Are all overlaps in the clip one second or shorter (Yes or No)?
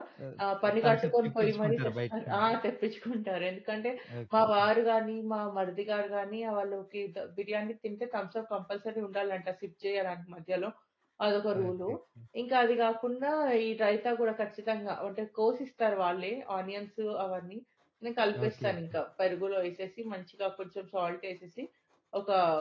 No